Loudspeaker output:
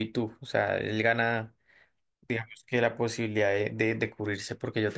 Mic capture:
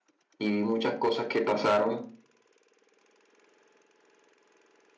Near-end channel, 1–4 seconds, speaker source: user only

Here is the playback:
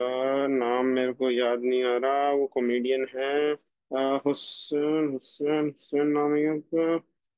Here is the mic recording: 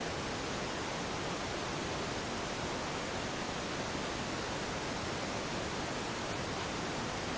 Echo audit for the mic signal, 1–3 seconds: neither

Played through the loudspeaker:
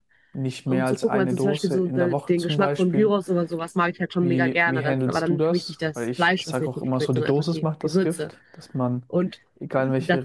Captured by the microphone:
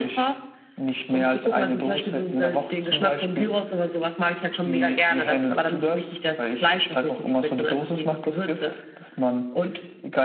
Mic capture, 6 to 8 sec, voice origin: echo only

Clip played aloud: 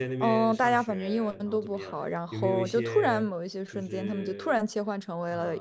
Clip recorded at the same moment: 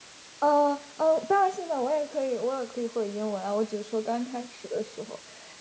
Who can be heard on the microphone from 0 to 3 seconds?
user only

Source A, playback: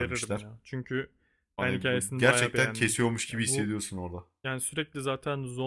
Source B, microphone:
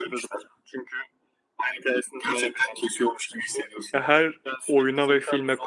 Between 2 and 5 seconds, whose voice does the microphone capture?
both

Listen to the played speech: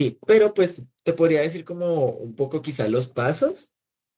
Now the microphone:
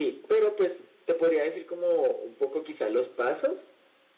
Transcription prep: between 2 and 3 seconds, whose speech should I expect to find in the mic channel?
echo only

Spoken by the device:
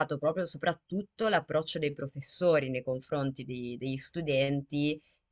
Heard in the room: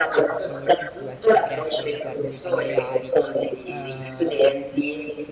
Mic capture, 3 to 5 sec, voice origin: both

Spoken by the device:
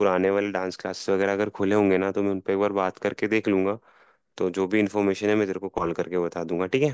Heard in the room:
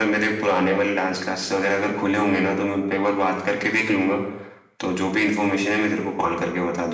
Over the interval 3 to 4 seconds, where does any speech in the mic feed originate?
echo only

